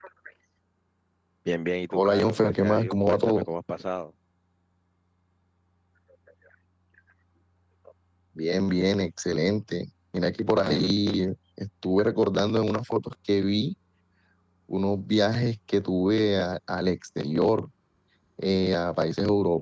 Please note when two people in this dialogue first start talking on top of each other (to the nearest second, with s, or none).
2 s